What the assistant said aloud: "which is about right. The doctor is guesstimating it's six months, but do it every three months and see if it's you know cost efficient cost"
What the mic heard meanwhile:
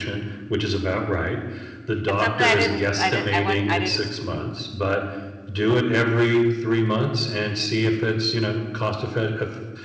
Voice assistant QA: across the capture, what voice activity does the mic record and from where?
both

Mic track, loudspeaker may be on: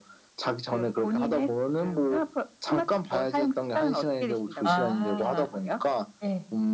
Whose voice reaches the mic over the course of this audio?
both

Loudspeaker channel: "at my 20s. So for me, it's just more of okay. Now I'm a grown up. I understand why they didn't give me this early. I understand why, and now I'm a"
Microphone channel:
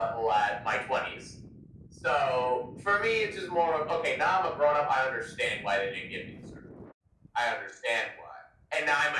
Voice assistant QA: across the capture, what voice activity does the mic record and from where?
echo only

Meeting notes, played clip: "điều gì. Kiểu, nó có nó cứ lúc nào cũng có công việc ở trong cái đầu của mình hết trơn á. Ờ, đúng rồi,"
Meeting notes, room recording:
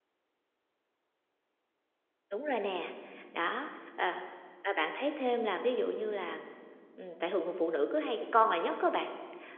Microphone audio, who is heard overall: user only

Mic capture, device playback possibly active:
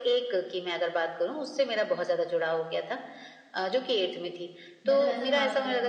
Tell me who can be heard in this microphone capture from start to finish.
both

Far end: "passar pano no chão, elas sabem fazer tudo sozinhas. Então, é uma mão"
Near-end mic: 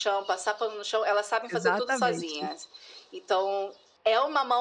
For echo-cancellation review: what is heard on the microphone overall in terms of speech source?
both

